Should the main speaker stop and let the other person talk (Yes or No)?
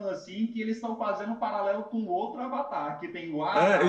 Yes